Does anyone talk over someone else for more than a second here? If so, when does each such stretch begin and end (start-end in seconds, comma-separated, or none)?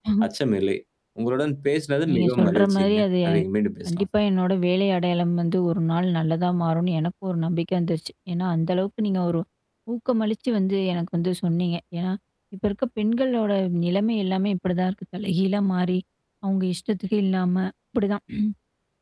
2.1-3.3